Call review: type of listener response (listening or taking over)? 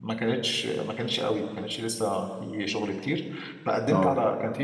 listening